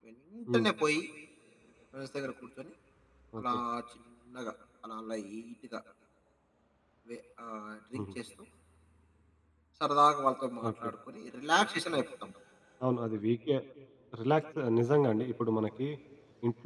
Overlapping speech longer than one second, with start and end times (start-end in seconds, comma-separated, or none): none